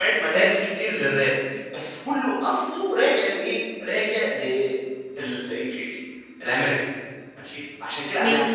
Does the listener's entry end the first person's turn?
No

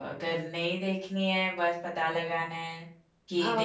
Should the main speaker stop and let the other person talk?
No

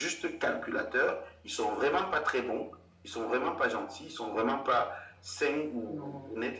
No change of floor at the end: Yes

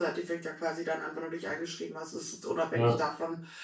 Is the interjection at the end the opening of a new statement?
No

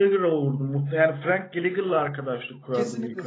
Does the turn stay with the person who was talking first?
No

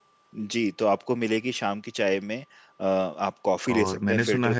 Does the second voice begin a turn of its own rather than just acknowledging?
Yes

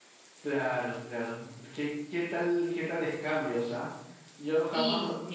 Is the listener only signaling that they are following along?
Yes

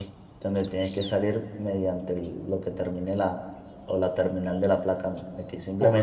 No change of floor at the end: No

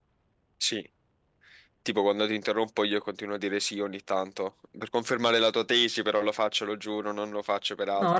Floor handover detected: Yes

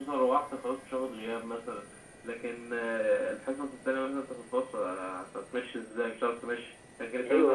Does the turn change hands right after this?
No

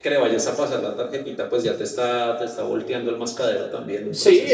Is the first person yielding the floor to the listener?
Yes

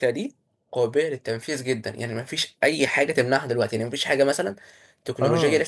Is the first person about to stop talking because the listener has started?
No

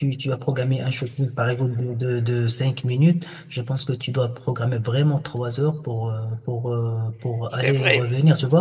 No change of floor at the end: Yes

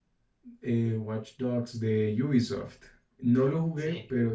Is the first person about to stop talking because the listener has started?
No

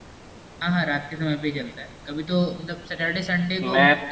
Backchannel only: Yes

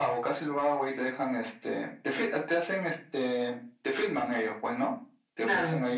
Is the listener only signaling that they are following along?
Yes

